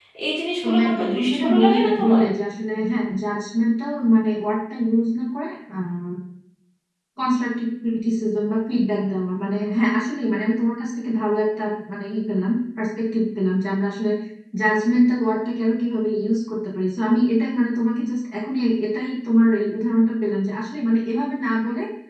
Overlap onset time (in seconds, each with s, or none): 0.6 s